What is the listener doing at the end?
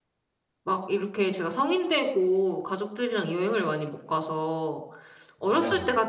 listening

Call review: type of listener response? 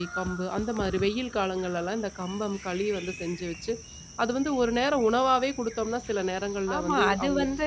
taking over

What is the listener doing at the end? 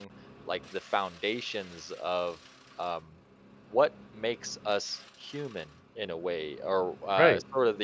listening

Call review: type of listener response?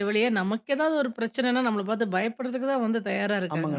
taking over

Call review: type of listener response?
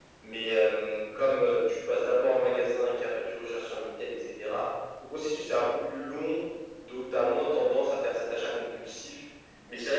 listening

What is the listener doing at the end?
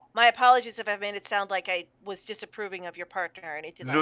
taking over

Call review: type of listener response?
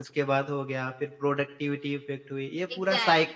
taking over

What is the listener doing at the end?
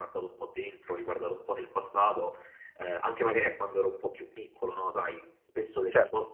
listening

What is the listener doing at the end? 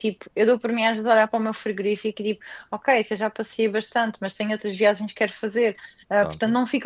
listening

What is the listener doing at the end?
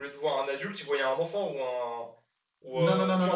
taking over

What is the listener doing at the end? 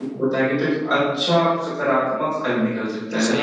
taking over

